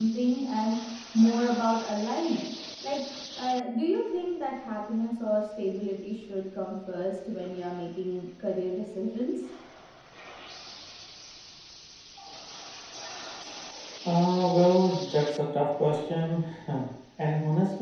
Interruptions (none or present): none